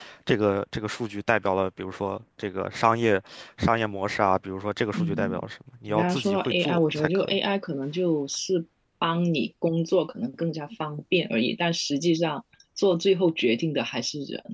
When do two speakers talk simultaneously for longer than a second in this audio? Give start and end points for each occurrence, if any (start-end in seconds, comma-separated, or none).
5.9-7.4